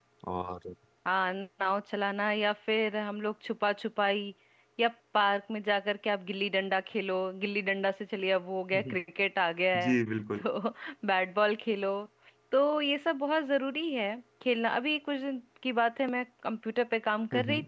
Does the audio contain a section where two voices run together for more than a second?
No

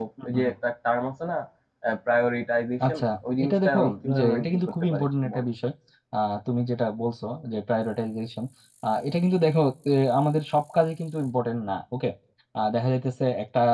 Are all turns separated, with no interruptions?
No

